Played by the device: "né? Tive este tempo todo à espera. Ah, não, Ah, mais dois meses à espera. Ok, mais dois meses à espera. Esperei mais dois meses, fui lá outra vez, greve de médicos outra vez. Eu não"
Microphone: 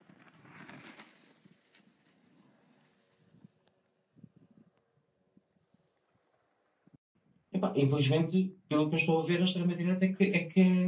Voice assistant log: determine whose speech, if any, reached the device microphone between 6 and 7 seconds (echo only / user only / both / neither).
neither